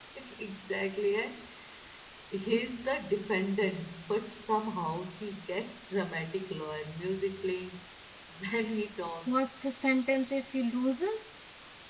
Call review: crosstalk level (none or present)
none